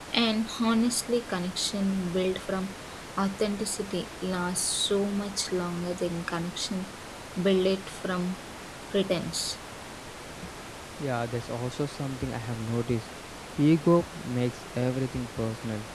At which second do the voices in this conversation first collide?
none

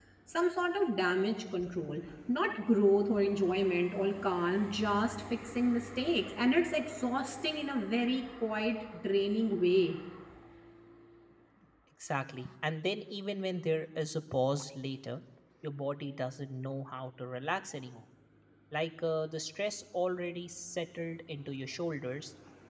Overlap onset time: none

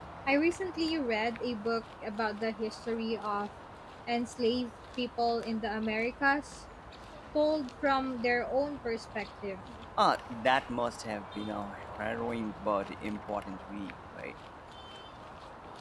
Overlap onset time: none

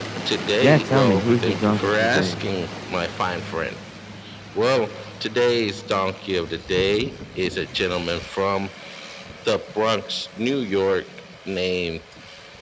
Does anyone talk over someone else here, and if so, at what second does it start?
1 s

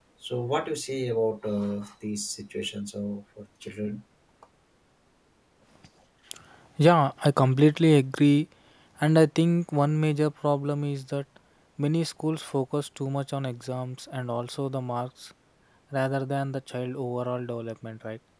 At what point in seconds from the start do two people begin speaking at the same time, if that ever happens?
none

